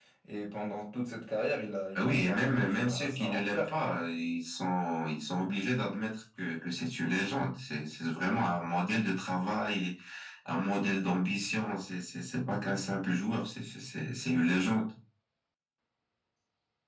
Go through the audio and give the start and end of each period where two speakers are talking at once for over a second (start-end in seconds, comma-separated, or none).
2.0-3.7